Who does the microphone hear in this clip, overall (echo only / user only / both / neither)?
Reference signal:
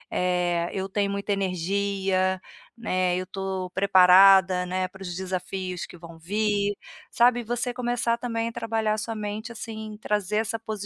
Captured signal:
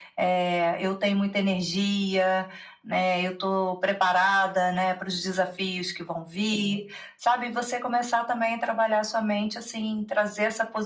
echo only